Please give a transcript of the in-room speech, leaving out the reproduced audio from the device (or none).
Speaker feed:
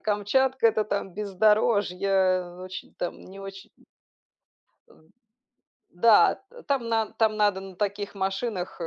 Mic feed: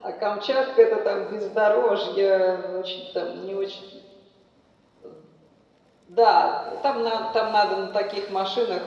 none